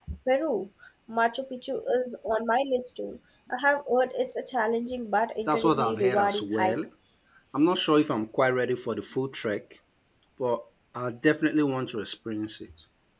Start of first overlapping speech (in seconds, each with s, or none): 5.5 s